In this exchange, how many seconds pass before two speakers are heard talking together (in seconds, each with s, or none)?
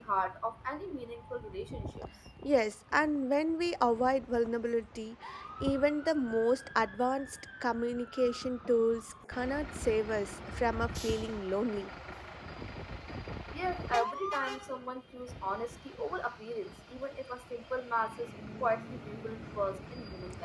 none